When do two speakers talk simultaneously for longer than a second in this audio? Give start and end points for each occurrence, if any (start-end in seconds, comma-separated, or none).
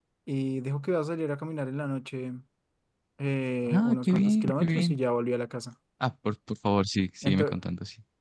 3.7-5.0